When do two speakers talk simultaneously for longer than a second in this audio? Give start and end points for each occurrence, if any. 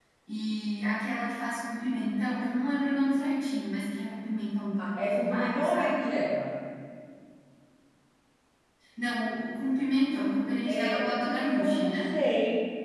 4.8-6.0, 10.7-12.2

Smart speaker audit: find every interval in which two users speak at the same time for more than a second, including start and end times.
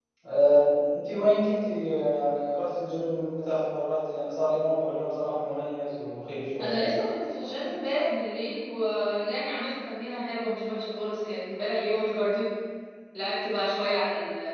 none

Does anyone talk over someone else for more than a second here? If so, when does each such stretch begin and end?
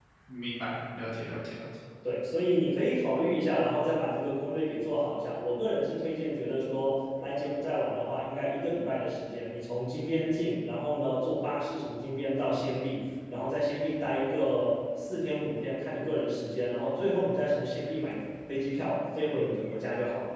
none

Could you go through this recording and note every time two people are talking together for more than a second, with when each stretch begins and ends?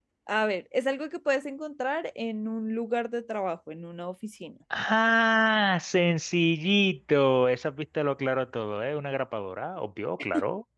none

